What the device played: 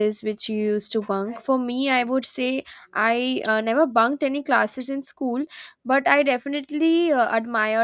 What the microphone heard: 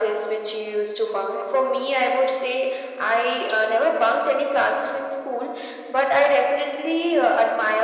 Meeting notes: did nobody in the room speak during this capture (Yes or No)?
Yes